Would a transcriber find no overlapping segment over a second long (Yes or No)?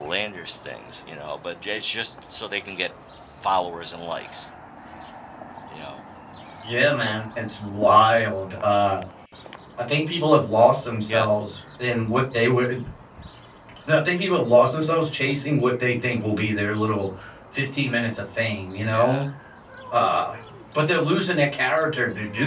Yes